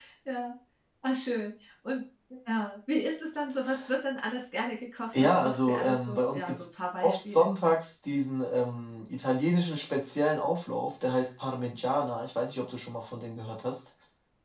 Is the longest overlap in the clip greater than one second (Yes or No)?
Yes